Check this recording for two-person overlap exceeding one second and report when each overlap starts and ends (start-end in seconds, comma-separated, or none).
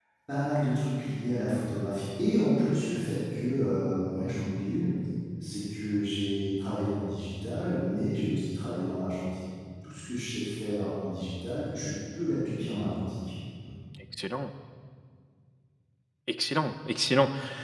none